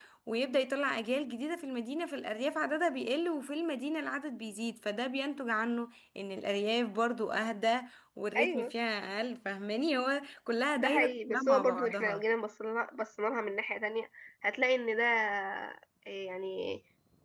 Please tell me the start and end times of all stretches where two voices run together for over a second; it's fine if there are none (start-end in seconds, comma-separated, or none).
10.8-12.2